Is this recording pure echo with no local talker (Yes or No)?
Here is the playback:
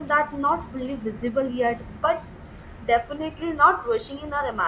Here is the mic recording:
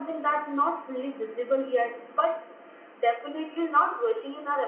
Yes